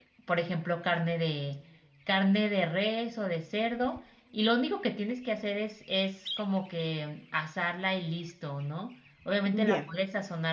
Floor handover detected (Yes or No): No